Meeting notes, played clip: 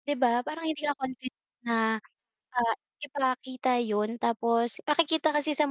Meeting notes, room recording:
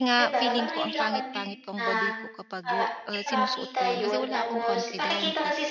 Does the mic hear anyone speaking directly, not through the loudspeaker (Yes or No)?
Yes